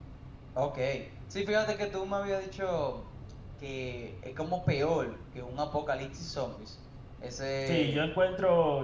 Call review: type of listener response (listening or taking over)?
taking over